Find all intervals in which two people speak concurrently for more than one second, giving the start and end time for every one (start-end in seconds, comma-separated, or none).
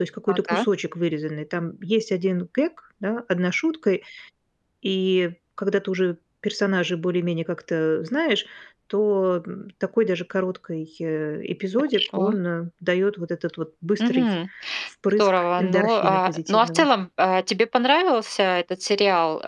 15.1-16.9